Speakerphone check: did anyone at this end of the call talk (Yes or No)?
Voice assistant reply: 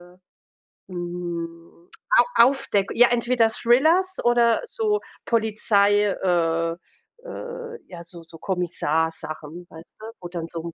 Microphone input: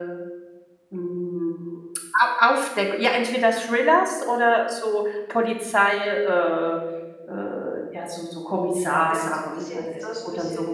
Yes